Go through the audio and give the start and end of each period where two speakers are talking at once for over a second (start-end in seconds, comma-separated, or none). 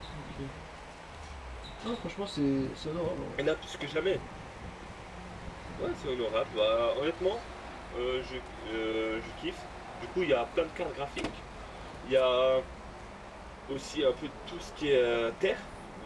none